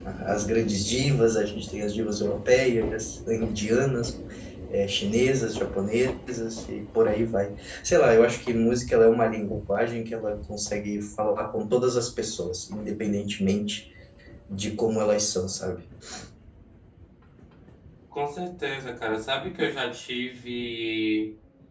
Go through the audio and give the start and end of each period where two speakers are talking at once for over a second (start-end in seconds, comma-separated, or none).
none